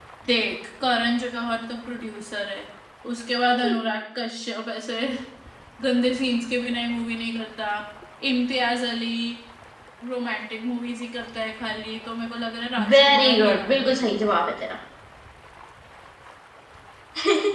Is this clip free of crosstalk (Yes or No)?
No